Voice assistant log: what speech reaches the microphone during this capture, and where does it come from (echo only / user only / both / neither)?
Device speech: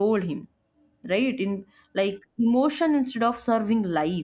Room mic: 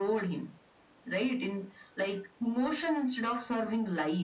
echo only